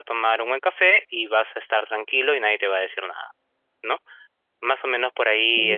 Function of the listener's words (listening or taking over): listening